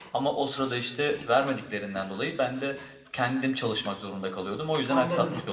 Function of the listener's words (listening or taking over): taking over